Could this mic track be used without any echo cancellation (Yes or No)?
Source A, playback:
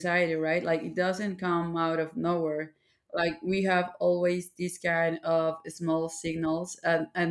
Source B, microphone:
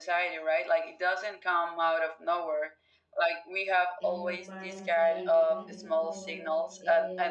No